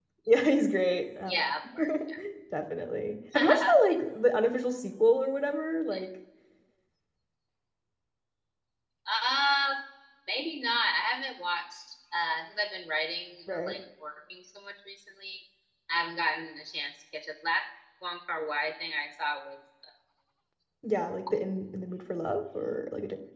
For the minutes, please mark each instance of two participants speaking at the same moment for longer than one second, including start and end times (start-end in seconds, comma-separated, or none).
none